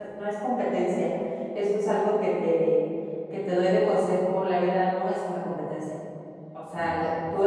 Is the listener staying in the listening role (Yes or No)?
Yes